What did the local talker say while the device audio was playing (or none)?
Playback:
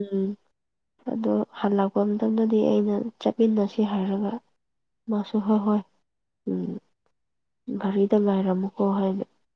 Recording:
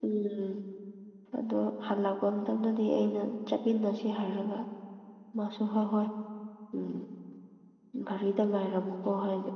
none